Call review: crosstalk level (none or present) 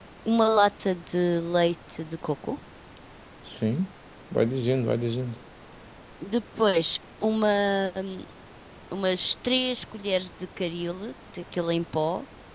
none